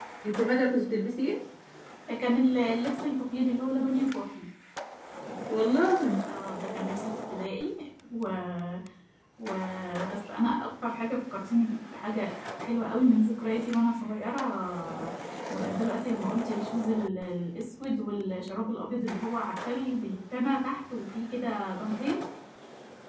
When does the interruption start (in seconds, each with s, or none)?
none